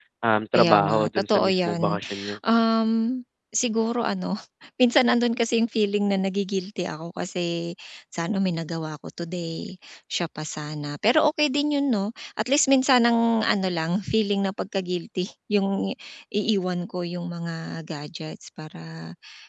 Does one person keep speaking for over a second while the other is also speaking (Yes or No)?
Yes